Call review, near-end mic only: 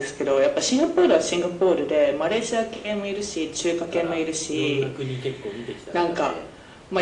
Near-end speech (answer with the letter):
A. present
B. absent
A